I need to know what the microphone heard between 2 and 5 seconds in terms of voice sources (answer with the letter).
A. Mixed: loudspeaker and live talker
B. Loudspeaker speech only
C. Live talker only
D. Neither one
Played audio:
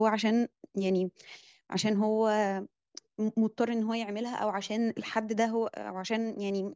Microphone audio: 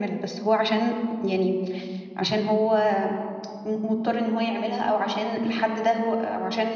B